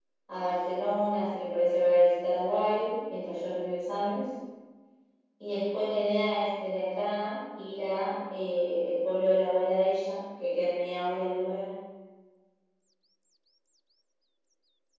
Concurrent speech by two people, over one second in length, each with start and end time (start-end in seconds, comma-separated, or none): none